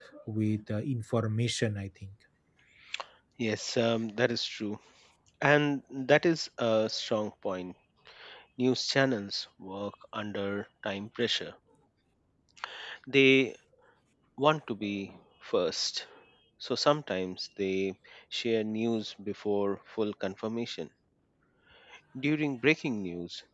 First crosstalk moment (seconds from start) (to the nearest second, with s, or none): none